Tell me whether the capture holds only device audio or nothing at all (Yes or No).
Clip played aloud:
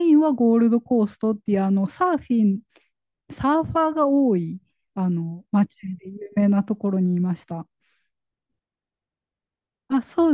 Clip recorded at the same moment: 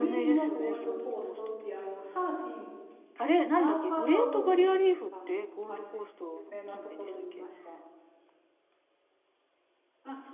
No